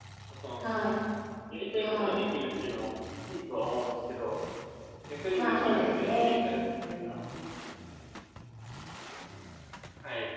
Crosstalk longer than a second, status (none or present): present